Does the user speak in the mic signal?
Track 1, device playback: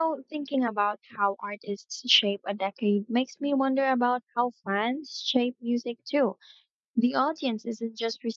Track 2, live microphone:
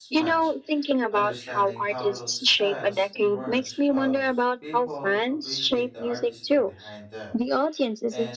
Yes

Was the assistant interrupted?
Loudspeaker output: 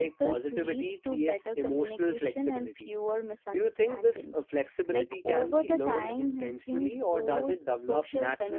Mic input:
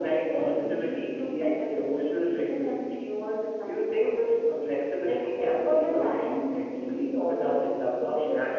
No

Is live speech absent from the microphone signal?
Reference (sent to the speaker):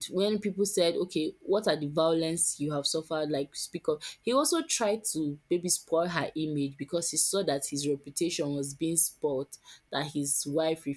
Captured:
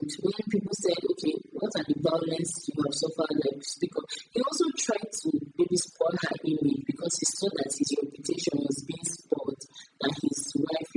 Yes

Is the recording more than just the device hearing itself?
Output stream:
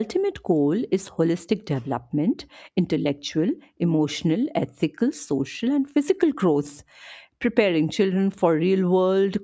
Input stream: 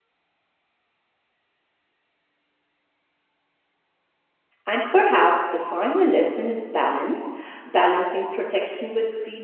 Yes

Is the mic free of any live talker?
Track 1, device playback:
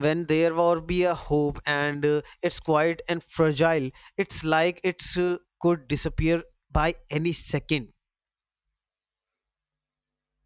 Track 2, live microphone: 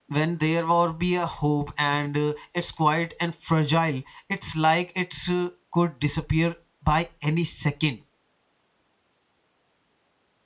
Yes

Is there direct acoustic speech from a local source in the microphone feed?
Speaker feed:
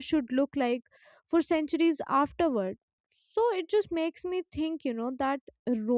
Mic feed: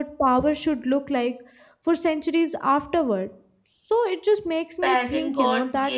Yes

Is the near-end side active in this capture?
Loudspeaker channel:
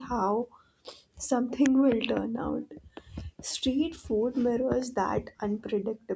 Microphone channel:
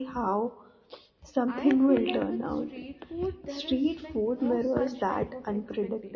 Yes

